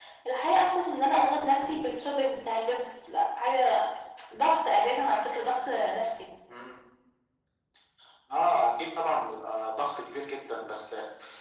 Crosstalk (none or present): none